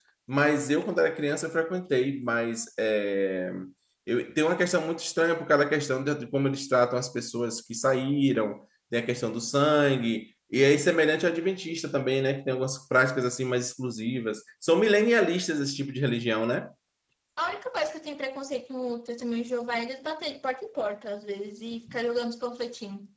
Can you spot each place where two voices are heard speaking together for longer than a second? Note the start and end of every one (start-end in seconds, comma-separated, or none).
none